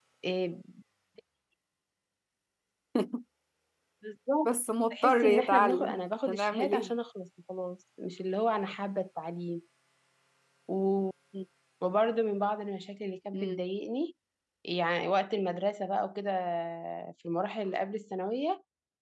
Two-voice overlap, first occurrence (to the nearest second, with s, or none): 5 s